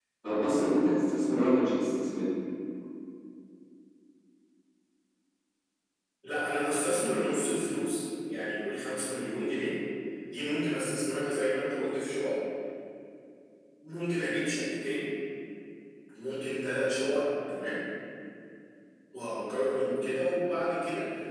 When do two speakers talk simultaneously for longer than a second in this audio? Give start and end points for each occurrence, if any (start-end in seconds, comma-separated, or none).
none